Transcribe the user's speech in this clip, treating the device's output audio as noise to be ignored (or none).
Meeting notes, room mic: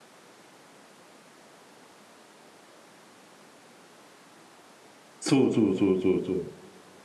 そうそうそうそうそう。